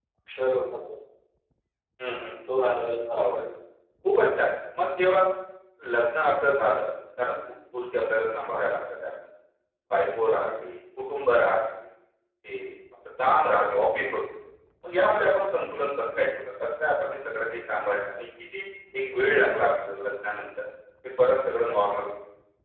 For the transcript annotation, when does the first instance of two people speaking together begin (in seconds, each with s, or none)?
none